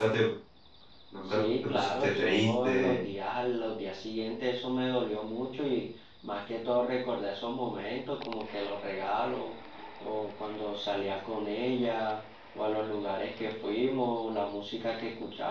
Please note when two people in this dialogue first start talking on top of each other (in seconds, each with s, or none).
1.2 s